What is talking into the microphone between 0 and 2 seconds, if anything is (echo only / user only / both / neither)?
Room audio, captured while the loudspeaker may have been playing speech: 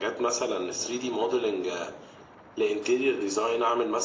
echo only